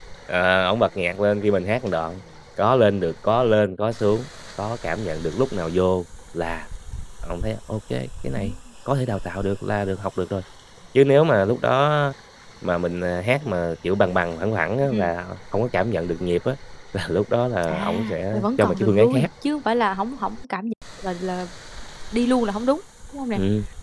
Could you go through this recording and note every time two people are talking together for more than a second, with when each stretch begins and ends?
17.7-19.3

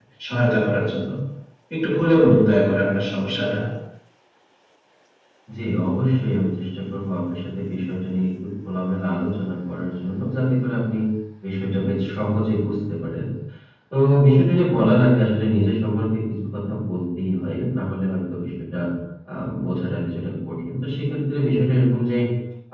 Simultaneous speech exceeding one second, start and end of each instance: none

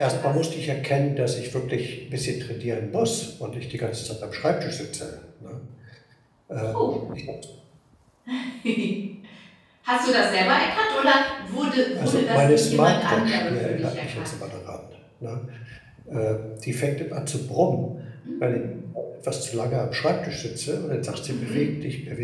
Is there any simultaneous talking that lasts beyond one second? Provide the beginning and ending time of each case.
12.0-14.4

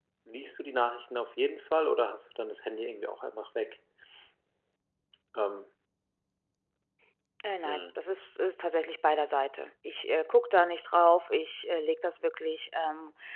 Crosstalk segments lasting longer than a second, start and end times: none

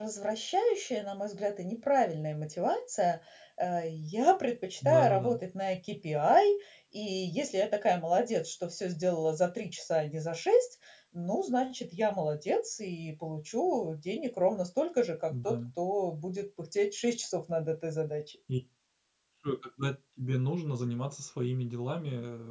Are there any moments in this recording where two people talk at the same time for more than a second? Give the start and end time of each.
none

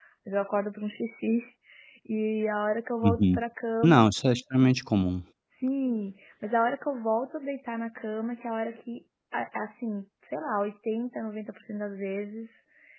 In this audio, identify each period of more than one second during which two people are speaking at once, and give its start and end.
none

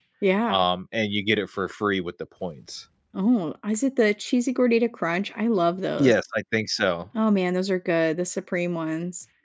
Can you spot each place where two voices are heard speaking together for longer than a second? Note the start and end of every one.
none

